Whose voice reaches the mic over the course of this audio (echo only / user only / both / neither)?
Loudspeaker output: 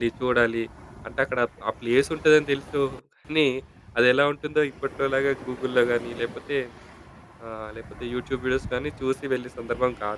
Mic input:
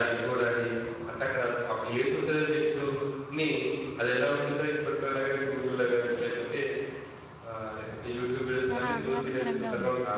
both